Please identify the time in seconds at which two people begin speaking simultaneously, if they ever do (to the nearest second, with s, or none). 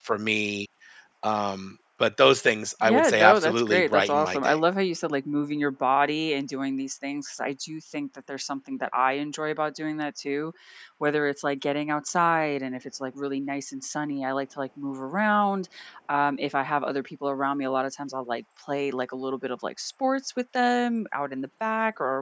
3 s